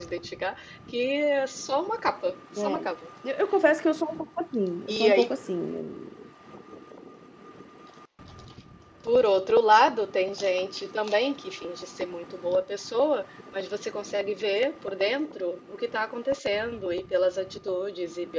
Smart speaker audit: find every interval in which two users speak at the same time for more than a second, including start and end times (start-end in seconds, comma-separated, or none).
none